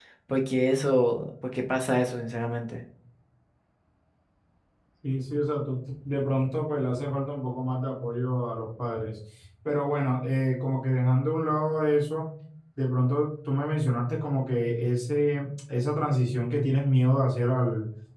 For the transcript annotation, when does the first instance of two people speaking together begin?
none

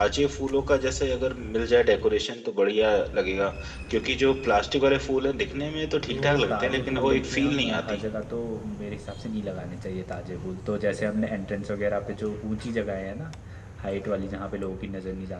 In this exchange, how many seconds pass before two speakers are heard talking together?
6.1 s

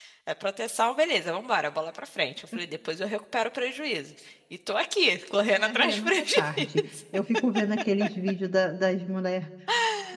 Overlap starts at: 5.5 s

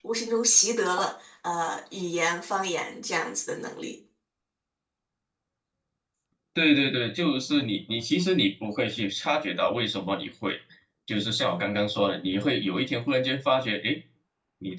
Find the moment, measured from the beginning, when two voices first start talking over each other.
none

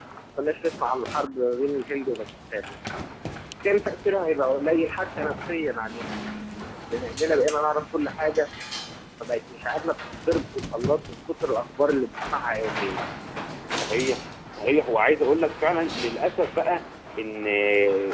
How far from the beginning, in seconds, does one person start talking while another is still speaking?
none

